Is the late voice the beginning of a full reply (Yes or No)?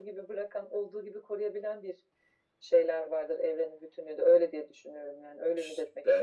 Yes